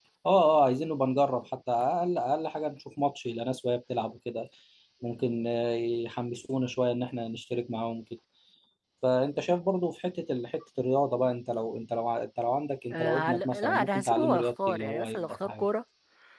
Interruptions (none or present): present